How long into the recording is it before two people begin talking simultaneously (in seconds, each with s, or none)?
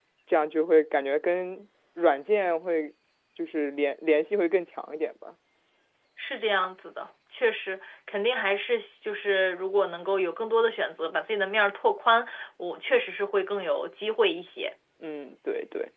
none